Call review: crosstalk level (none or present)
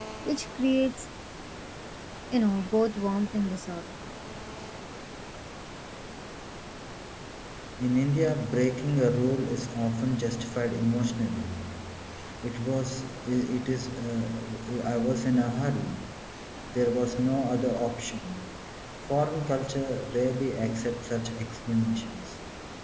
none